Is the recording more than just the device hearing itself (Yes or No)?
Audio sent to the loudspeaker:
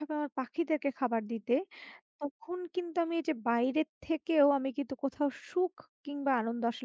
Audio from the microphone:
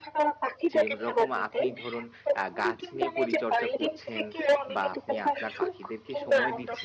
Yes